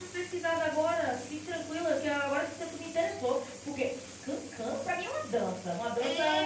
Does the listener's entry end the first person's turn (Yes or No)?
Yes